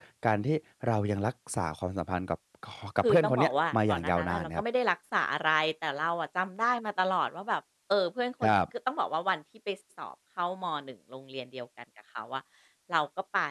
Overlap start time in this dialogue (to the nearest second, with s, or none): 3 s